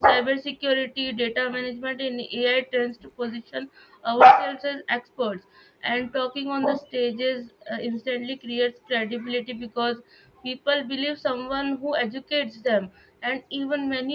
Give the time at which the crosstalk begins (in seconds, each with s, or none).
none